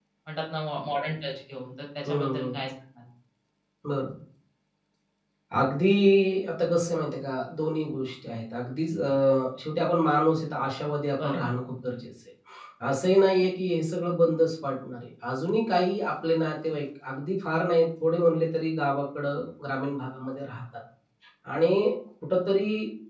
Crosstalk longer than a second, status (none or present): none